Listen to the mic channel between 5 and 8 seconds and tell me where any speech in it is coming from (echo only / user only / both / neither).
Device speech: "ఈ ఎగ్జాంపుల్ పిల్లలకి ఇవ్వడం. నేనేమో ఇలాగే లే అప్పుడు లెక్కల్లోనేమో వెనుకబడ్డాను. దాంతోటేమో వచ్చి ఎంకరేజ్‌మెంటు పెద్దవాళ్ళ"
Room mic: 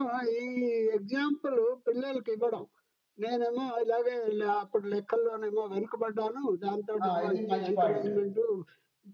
both